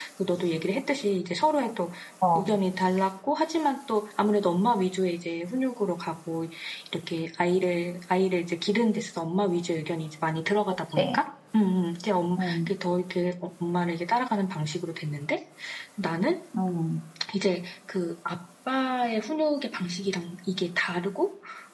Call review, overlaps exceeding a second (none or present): none